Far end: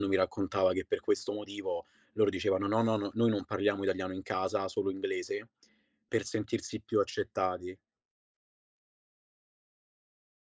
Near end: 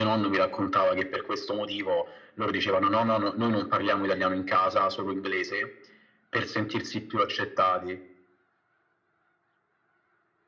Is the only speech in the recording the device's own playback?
Yes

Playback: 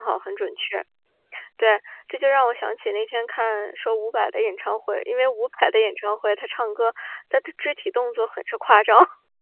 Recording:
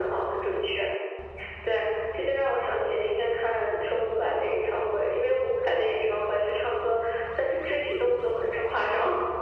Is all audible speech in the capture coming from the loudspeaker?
Yes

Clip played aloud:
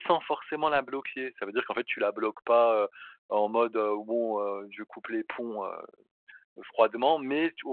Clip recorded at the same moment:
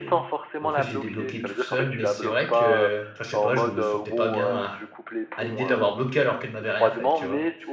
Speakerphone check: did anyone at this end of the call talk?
Yes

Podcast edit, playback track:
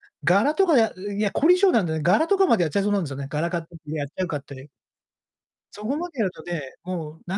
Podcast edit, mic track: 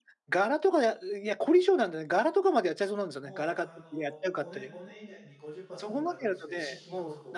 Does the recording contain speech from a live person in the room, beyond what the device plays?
Yes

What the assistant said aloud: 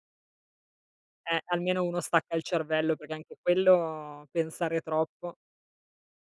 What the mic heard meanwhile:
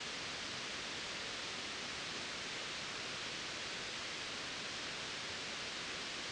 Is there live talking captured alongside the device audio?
No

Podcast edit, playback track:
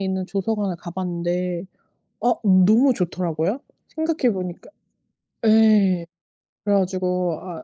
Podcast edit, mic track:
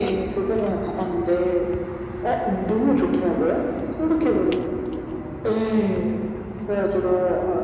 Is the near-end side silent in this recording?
Yes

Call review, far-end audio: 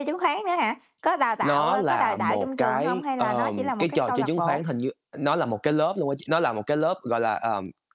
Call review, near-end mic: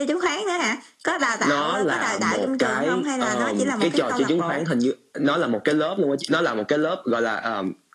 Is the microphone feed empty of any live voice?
Yes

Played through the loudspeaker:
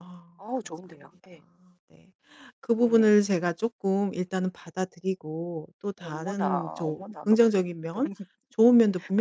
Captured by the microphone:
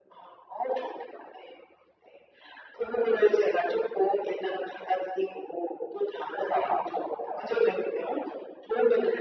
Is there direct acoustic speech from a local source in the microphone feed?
No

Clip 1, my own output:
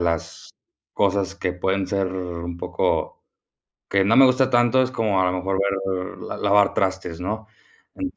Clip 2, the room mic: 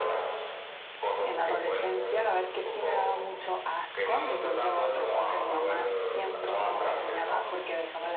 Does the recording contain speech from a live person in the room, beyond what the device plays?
Yes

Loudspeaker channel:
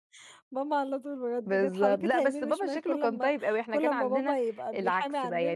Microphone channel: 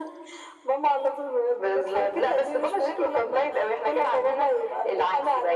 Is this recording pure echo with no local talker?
Yes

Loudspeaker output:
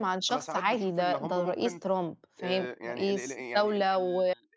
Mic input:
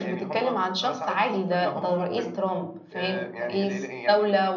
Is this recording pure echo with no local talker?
Yes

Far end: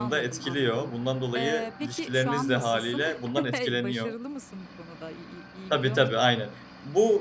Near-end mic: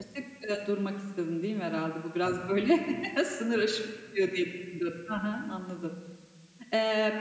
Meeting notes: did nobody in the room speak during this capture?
No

